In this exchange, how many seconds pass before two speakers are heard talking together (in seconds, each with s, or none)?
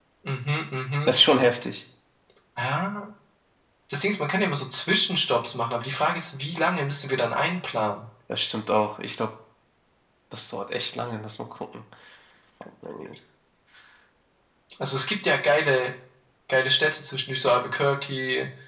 none